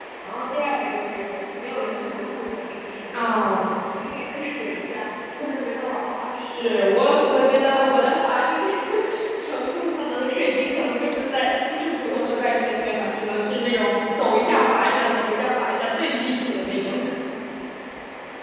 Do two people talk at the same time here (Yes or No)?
No